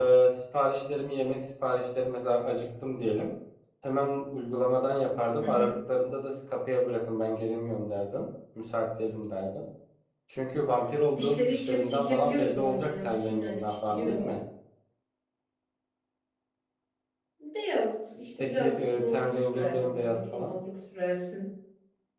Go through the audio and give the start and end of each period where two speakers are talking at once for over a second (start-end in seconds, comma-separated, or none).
11.2-14.3, 18.4-20.5